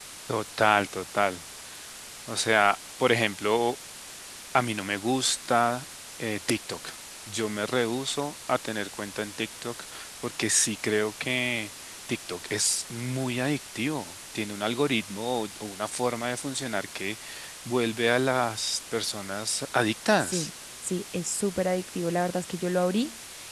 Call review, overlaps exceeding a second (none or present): none